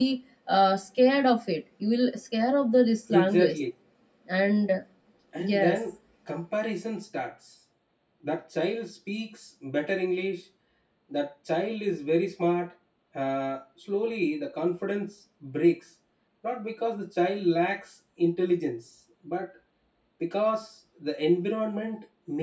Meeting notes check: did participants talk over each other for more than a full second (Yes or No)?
No